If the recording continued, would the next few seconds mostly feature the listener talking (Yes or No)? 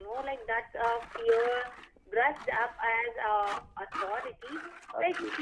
No